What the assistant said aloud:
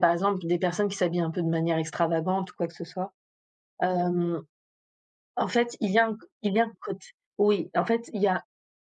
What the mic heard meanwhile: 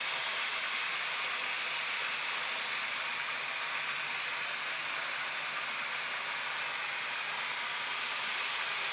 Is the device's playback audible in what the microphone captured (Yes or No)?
No